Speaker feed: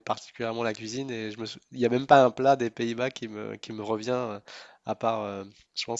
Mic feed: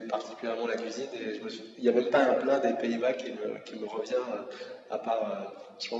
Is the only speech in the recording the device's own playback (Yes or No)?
Yes